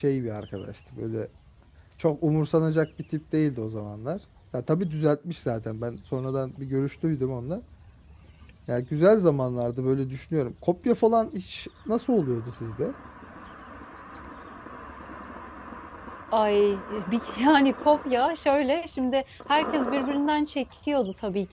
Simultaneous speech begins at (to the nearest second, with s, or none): none